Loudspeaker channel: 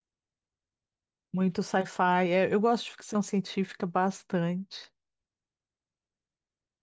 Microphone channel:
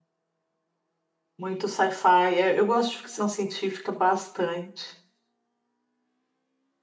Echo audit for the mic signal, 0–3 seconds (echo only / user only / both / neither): echo only